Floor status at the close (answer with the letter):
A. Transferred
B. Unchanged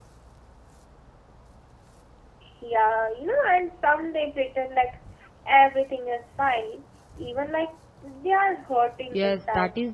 A